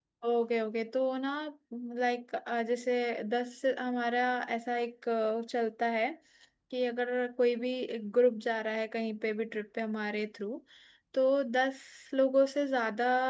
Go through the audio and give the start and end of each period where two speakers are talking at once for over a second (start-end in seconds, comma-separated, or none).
none